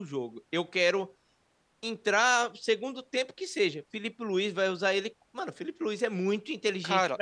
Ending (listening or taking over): taking over